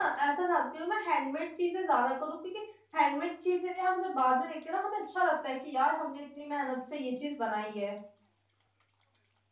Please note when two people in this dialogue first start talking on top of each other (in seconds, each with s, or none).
none